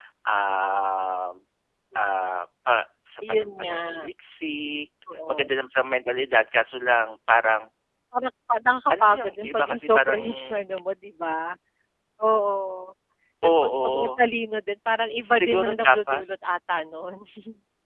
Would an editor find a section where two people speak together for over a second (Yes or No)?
Yes